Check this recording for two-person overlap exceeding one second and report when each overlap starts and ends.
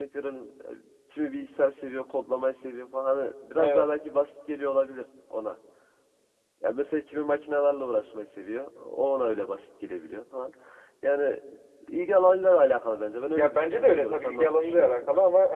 13.3-15.0

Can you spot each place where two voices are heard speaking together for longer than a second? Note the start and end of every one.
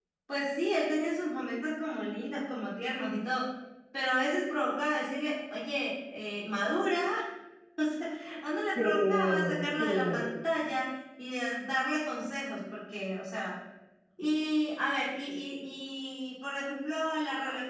8.8-10.2

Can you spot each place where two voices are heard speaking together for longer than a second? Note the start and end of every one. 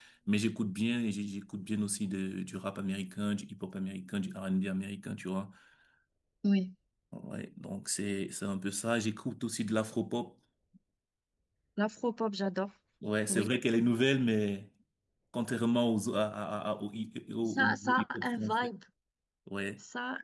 17.4-18.7

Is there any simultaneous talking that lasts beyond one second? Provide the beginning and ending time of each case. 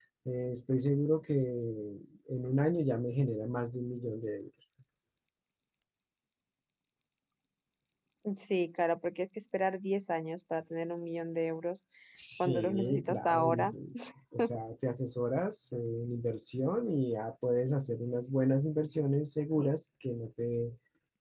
12.4-13.7

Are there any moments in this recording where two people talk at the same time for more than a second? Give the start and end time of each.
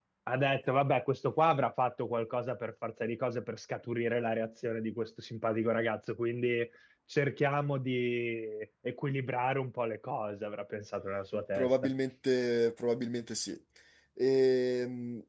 none

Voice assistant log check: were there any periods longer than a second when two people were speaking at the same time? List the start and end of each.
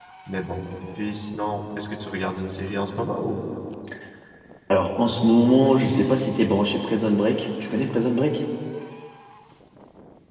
none

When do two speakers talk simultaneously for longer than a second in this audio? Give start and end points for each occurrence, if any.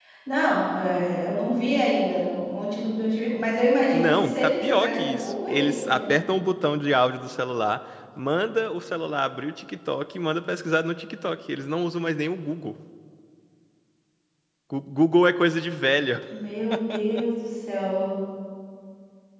4.0-6.0

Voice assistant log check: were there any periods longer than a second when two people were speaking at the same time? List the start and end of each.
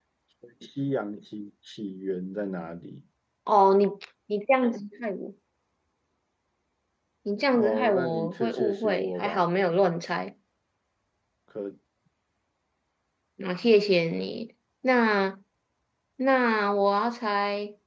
7.5-9.5

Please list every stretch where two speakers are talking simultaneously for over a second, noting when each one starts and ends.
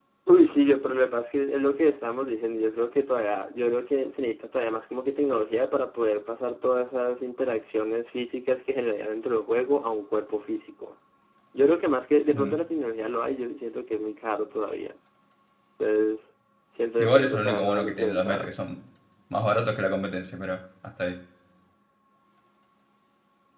17.0-18.5

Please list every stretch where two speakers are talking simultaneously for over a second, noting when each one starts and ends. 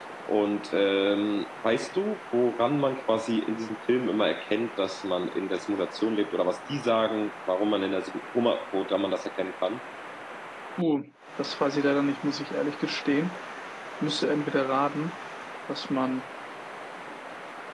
none

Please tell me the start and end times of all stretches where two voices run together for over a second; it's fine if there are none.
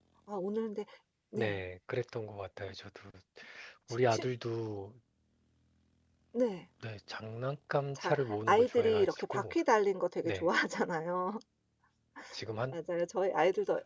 8.0-9.5

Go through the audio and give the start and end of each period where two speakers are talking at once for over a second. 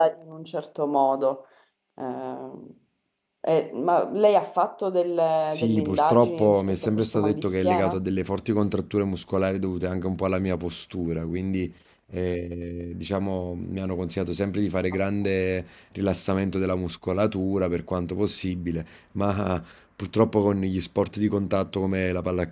5.5-8.0

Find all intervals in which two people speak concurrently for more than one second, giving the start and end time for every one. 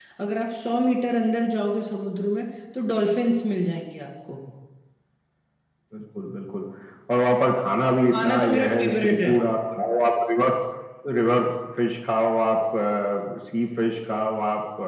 8.1-9.3

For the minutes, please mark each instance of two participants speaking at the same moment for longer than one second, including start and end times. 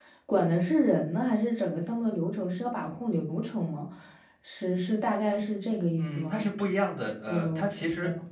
none

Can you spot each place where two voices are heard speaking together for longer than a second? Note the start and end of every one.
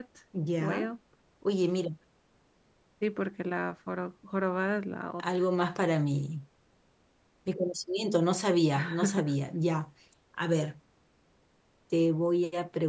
none

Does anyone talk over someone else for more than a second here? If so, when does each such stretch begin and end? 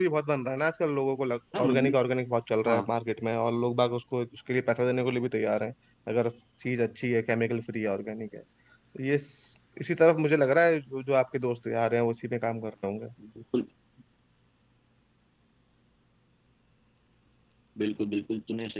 none

